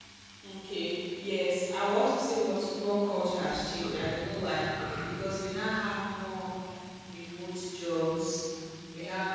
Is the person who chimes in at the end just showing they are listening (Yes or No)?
Yes